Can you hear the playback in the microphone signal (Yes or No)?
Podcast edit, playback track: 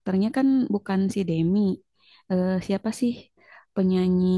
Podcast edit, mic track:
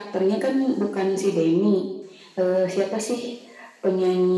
Yes